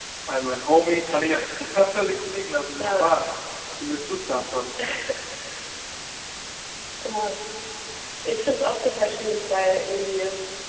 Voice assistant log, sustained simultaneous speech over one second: none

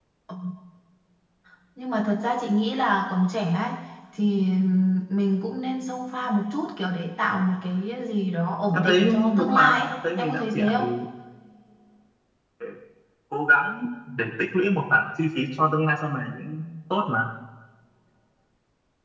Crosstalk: present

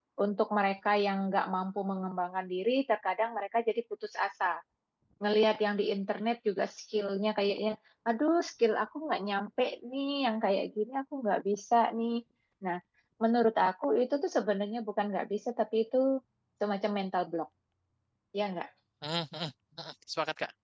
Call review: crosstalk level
none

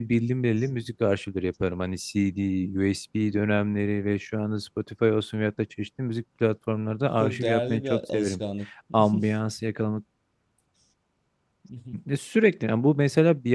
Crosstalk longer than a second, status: present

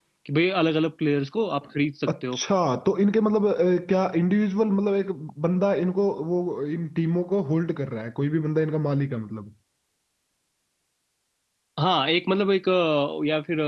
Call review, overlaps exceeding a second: none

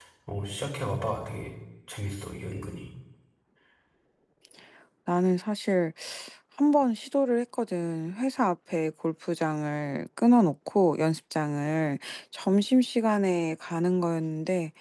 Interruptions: none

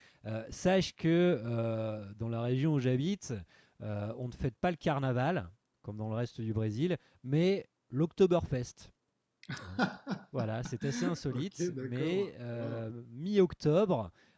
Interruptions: present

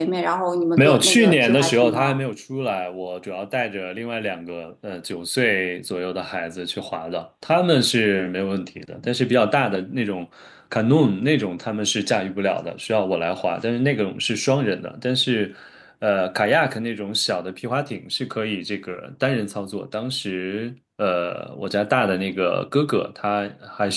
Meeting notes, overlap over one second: present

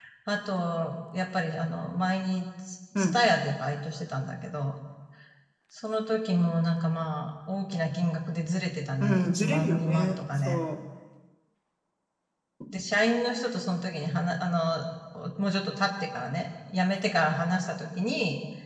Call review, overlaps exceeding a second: present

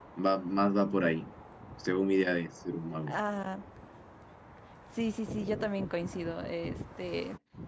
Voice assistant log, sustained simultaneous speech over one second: none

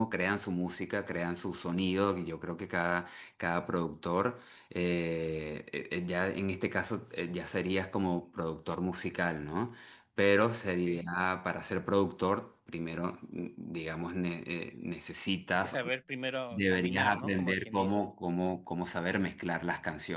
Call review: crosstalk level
present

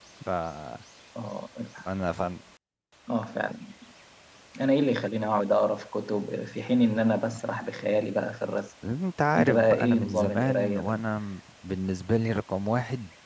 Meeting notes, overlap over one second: present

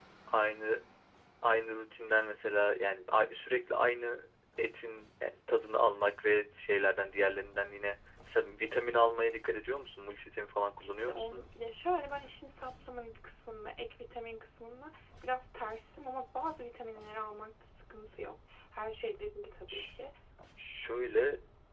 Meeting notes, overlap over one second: none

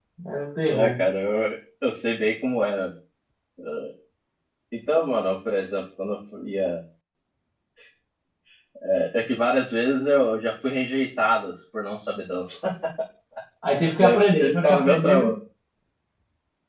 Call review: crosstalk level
present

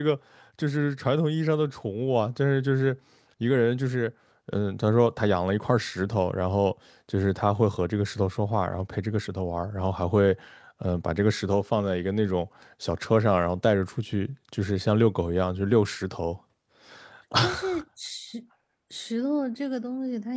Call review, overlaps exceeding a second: none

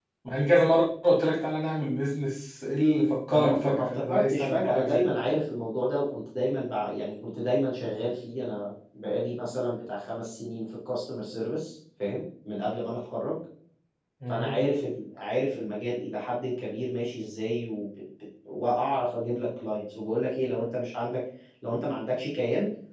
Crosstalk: present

